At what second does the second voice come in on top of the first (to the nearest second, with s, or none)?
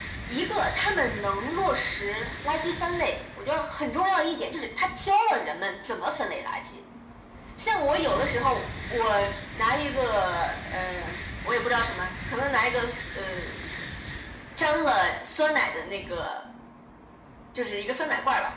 none